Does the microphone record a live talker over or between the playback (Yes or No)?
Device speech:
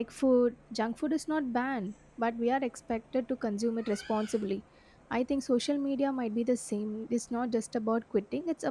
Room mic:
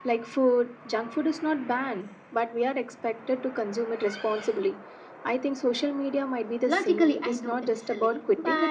Yes